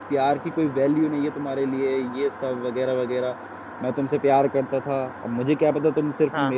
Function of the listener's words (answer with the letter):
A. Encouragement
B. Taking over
A